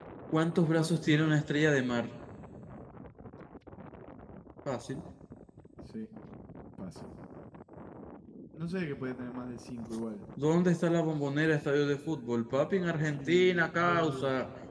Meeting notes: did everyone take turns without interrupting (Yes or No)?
No